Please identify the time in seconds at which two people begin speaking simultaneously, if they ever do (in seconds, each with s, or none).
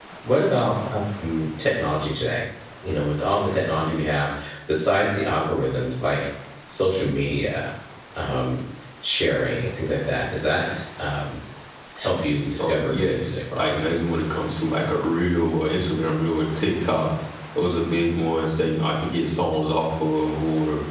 12.6 s